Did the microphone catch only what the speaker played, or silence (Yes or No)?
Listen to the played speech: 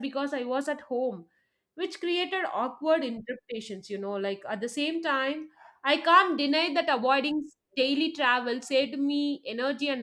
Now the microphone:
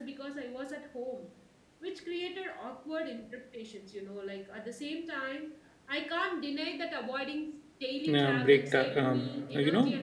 No